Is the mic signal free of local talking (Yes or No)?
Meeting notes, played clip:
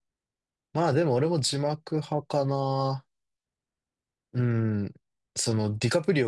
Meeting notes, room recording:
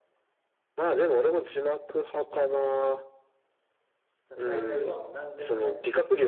No